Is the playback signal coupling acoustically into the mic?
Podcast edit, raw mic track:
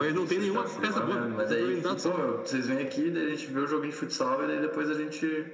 Yes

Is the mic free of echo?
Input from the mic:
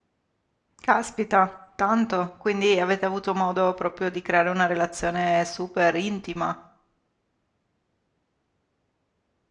Yes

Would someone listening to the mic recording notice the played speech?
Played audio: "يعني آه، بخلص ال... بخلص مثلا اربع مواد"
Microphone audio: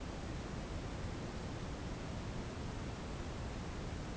No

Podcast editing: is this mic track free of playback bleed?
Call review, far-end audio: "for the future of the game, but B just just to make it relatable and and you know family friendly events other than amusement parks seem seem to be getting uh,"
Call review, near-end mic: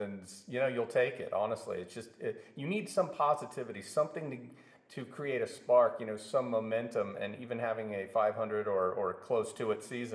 Yes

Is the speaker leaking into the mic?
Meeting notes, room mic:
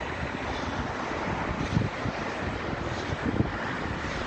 No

